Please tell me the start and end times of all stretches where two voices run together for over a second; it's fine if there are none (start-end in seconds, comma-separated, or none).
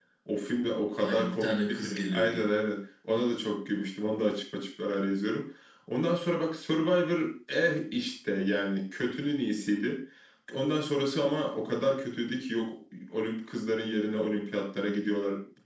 1.0-2.5